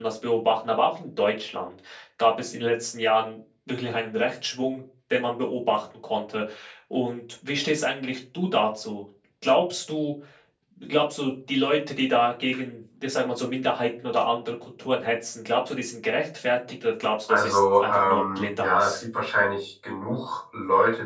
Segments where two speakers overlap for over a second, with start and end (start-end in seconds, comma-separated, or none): 17.3-19.0